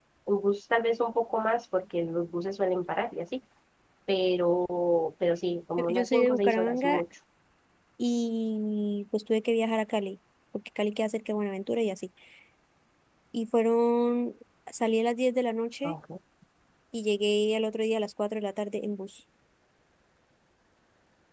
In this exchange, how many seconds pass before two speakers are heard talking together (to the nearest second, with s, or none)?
6 s